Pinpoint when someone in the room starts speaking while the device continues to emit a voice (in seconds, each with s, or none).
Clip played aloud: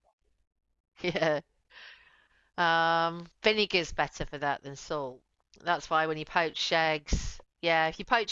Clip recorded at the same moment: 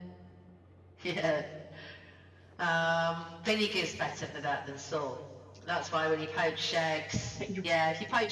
7.4 s